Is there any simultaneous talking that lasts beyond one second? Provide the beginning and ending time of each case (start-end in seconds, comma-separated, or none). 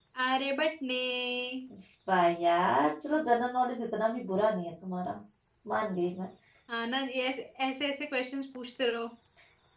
none